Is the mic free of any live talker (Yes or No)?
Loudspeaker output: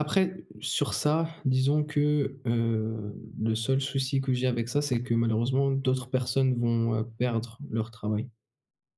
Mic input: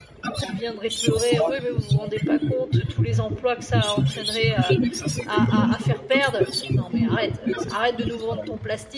No